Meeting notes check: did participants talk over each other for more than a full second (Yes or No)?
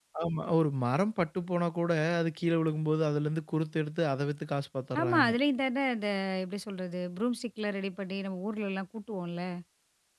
No